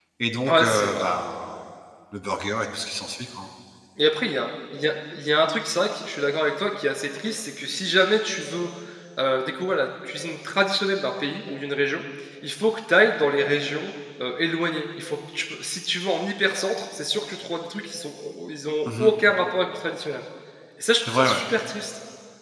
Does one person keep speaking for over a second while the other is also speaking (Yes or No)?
No